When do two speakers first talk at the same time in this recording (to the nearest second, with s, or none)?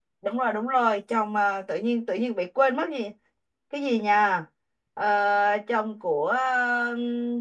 none